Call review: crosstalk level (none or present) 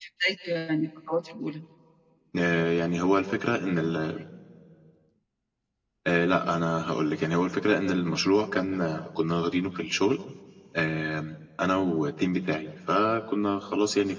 none